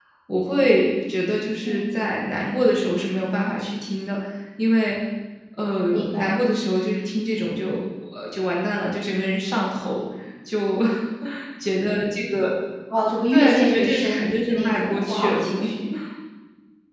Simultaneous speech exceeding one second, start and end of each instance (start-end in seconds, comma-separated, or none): 13.3-15.7